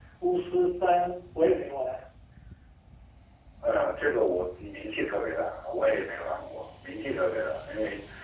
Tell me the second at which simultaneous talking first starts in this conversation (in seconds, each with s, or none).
none